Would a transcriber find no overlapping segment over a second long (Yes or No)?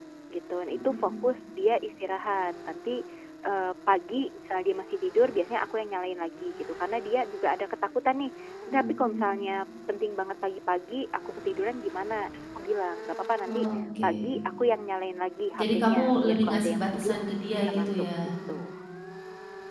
No